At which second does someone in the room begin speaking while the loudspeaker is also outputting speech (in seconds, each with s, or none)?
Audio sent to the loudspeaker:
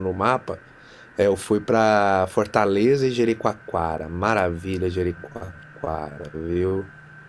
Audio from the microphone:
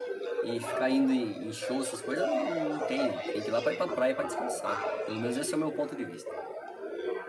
0.4 s